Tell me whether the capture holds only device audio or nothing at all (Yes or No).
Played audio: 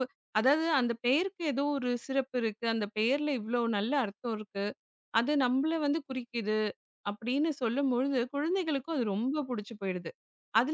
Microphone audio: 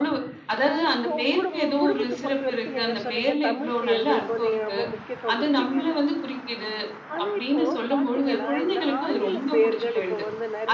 No